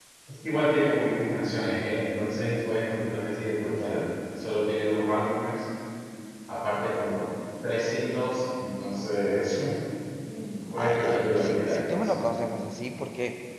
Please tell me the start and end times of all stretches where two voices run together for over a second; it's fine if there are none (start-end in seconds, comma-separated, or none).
10.8-12.2